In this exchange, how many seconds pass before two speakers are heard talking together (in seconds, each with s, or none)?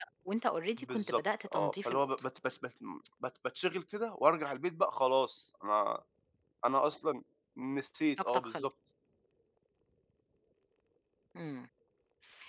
0.8 s